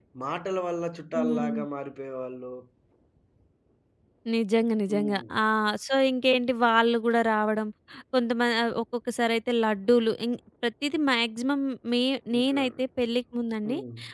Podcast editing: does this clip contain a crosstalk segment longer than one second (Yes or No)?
No